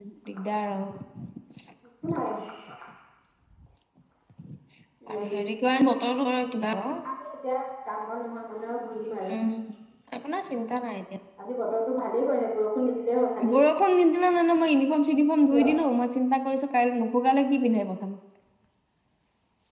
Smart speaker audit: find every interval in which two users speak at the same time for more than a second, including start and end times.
none

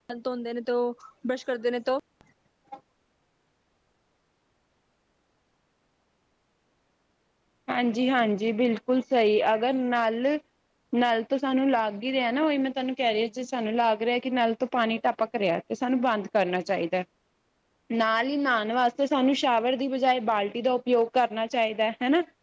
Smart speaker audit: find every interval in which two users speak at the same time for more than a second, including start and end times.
none

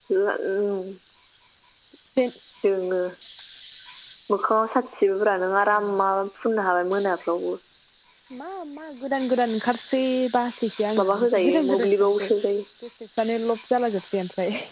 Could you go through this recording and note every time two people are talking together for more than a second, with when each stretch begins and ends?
11.0-12.3

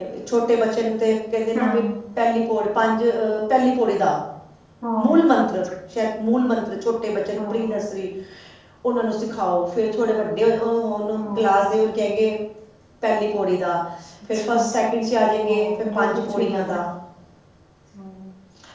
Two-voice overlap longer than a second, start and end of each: 15.4-16.8

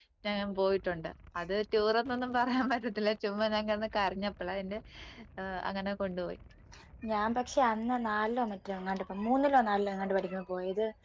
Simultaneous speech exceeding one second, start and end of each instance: none

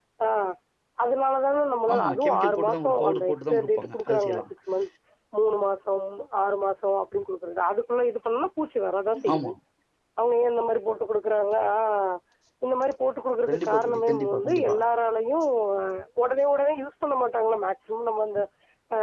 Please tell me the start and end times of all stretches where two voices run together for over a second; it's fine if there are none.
1.9-4.5, 13.5-14.7

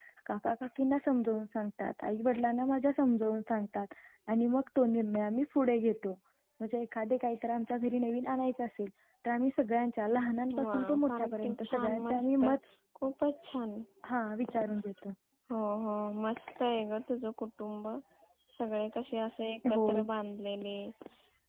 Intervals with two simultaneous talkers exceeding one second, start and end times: 10.7-12.4

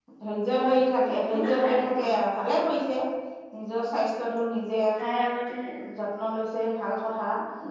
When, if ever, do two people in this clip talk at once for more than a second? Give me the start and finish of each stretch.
0.8-2.1

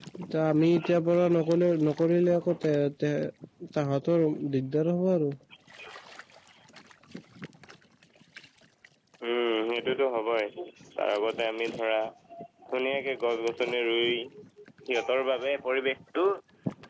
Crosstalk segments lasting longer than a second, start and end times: none

